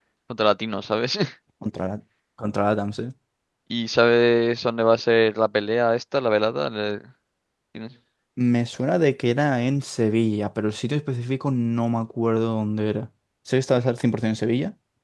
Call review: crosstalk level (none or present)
none